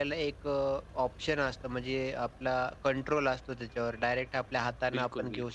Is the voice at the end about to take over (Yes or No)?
No